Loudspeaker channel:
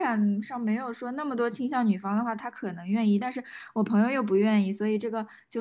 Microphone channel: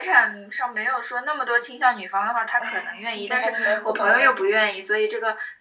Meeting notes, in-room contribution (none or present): present